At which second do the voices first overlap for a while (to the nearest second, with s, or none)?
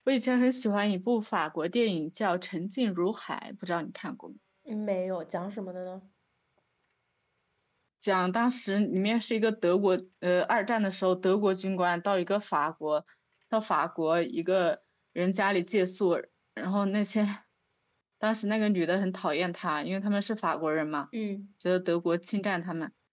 none